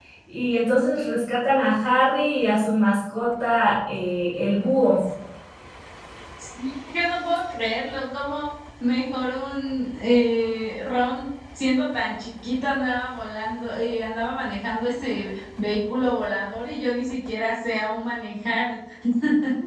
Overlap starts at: none

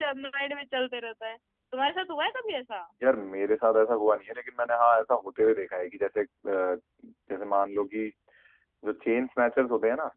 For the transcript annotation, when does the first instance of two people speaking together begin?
none

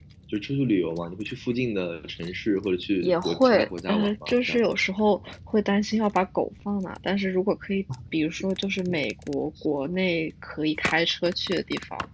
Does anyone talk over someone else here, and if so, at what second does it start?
3.0 s

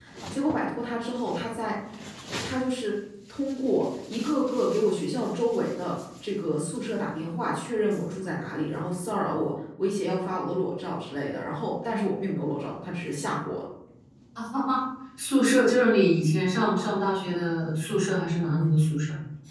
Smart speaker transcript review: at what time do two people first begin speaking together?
none

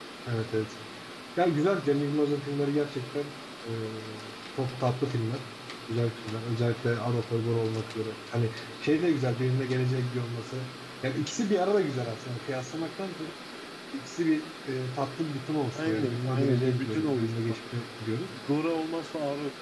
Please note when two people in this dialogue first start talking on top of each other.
15.8 s

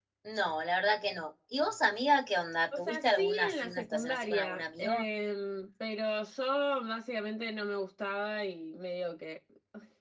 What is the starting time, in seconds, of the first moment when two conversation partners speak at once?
2.7 s

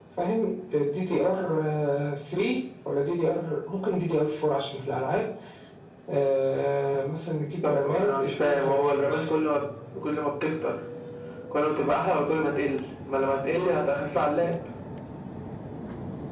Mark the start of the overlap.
7.6 s

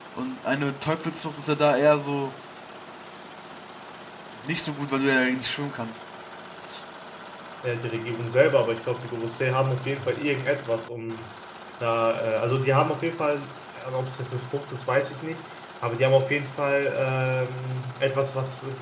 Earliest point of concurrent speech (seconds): none

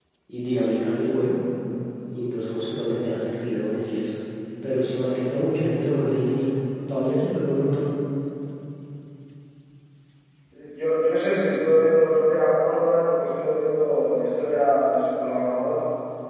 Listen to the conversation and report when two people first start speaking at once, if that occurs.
none

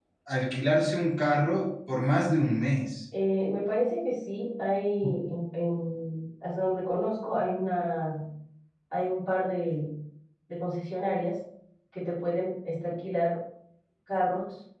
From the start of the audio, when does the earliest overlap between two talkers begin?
none

